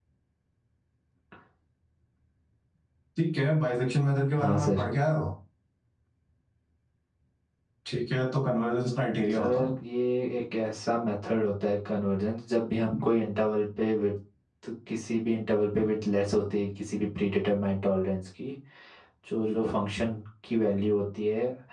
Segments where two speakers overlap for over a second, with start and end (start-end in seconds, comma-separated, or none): none